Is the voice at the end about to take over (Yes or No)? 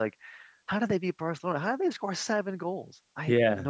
Yes